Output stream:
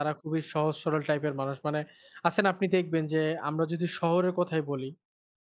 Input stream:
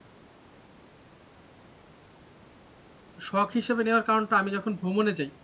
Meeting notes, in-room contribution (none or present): present